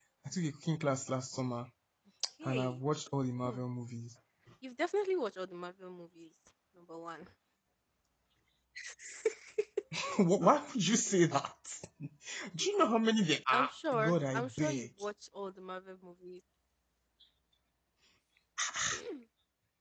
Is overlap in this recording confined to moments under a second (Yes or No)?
No